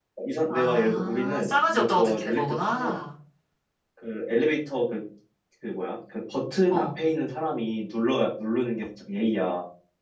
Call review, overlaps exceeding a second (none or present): present